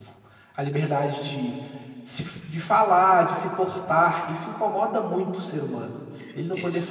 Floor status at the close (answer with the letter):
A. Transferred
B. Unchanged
B